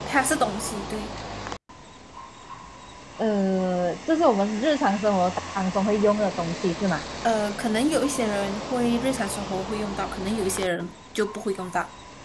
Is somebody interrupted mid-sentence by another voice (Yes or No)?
No